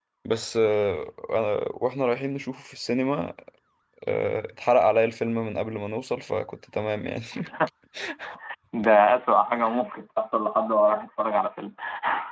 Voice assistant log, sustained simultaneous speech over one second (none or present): none